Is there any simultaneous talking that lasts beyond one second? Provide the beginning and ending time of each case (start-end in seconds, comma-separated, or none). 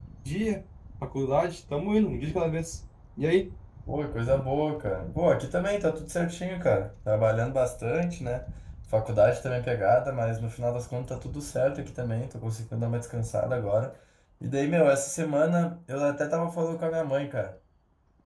none